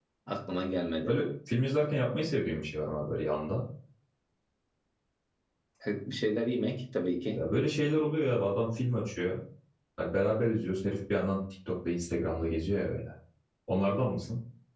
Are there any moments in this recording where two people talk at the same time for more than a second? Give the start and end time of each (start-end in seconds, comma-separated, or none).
none